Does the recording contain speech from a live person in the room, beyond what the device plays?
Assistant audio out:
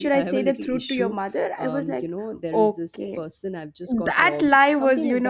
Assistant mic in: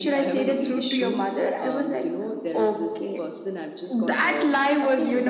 No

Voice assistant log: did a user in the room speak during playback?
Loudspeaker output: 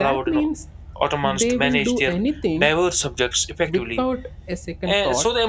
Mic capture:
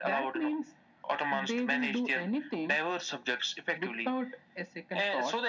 No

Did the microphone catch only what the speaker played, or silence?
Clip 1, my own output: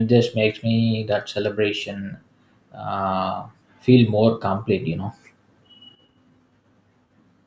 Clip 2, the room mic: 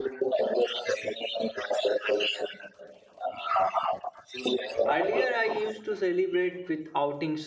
No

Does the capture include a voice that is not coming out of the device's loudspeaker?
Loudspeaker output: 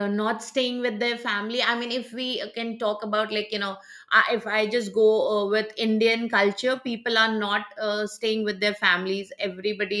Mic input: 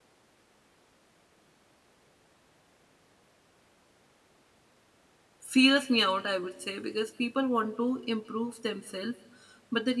Yes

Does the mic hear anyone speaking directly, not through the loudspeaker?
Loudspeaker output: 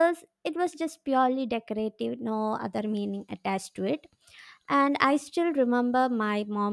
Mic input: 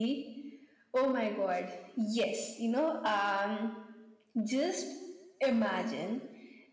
Yes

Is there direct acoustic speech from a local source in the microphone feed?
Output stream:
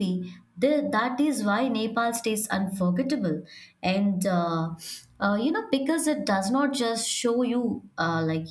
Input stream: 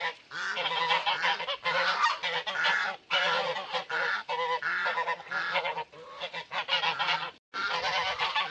No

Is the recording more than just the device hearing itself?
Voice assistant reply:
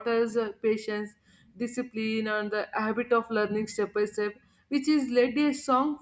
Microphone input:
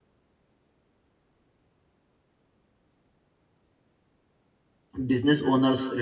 Yes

